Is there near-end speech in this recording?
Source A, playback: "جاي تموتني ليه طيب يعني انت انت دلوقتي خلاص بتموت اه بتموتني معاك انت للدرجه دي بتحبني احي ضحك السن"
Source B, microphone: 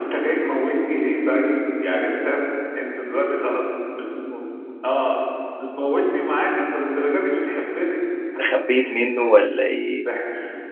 Yes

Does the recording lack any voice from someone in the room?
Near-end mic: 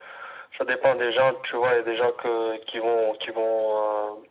Yes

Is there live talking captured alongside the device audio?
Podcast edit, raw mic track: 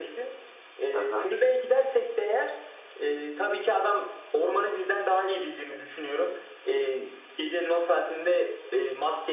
Yes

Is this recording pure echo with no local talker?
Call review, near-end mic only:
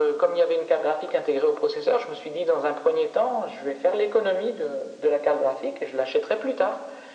Yes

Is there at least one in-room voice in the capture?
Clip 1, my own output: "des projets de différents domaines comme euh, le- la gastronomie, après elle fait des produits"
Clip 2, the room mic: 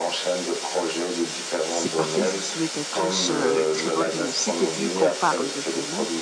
Yes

